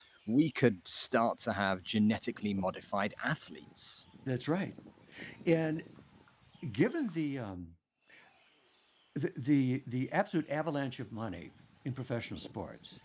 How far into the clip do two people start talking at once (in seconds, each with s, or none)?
none